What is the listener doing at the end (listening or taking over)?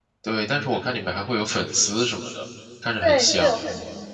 taking over